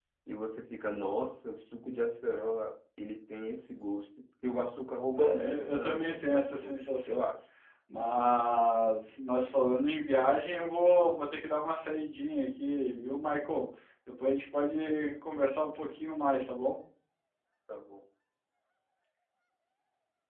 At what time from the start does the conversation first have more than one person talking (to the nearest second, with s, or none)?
5 s